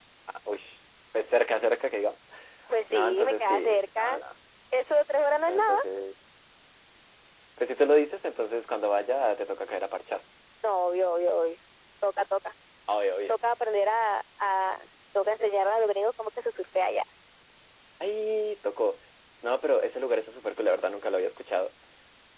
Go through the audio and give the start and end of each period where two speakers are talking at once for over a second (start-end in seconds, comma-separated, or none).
2.9-4.2